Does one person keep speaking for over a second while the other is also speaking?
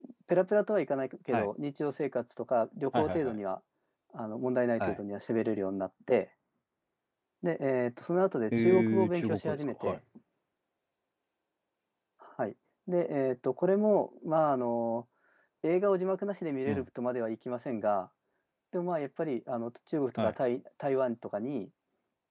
Yes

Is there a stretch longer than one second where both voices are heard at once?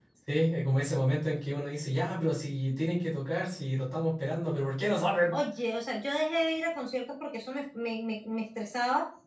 No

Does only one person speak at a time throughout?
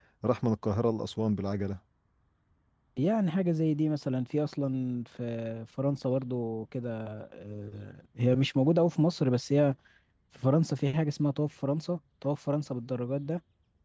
Yes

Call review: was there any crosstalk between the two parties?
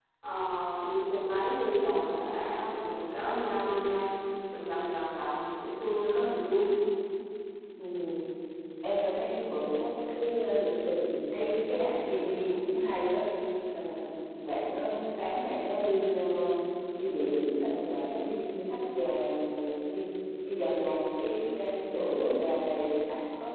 No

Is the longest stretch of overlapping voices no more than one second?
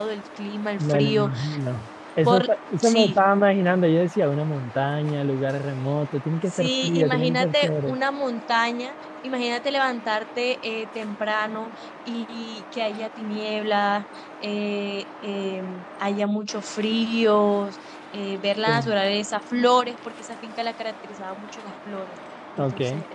No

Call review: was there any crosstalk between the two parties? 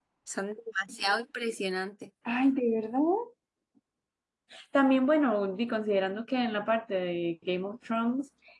No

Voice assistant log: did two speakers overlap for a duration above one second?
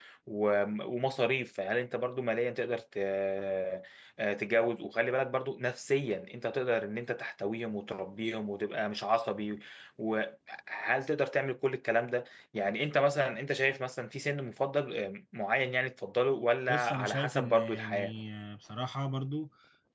Yes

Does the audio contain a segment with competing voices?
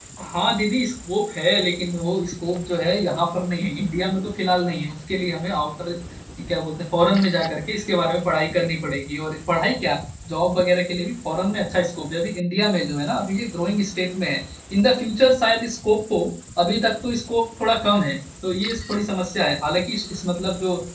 No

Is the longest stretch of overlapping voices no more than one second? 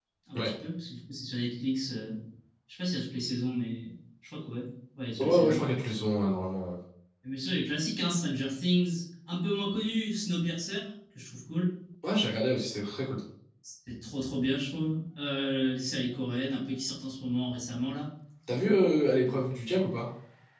Yes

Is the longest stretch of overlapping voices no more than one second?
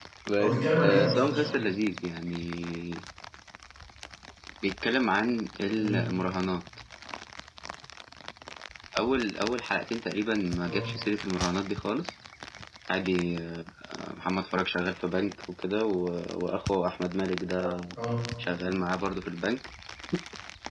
No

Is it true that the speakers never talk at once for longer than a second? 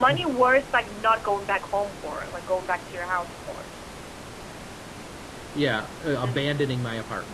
Yes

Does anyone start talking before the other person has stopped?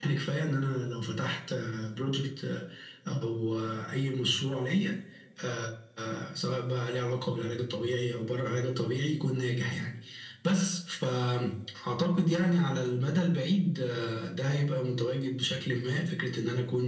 No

